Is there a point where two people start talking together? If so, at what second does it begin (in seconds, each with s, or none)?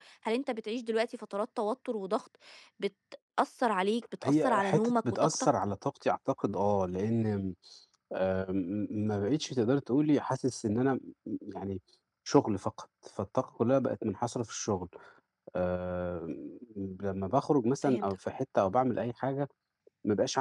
4.2 s